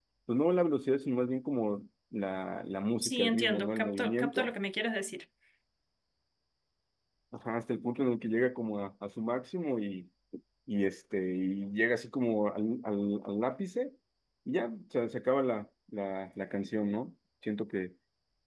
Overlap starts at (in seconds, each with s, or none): 3.0 s